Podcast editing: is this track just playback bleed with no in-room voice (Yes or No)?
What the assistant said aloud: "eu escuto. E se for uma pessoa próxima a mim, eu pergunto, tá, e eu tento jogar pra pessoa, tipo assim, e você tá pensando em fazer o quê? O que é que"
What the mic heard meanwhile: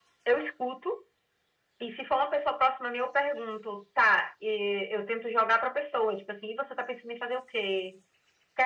Yes